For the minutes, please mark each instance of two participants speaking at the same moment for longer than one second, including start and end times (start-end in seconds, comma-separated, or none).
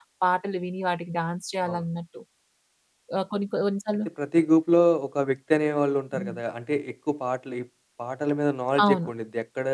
none